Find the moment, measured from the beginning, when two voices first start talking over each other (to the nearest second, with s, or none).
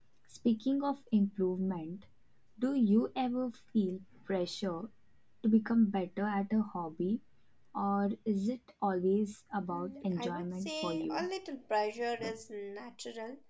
10 s